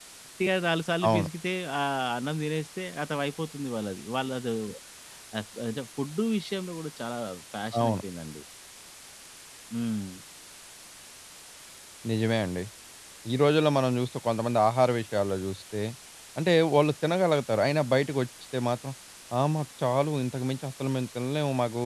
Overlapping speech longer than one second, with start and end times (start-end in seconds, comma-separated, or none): none